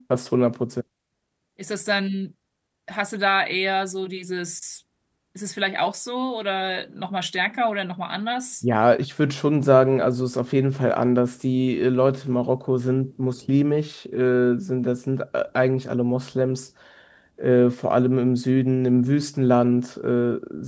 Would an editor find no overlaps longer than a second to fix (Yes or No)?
Yes